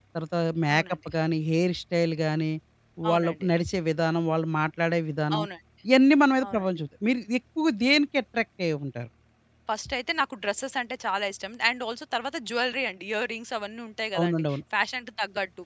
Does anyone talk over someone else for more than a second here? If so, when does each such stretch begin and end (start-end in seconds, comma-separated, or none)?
none